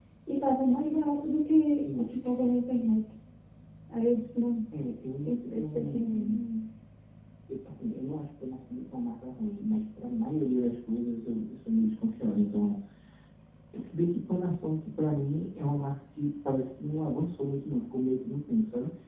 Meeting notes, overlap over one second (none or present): present